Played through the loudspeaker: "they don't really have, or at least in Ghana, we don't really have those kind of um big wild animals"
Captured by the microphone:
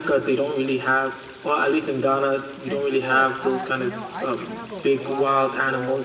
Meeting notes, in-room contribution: present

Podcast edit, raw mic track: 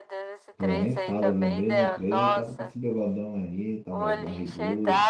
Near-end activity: present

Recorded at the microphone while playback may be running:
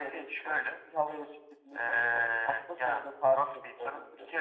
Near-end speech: none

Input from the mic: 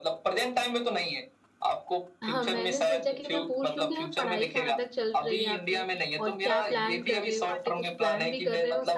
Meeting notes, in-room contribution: present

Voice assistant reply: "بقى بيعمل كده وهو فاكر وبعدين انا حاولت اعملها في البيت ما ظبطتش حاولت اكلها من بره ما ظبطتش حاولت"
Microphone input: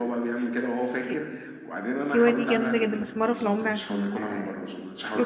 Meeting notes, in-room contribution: present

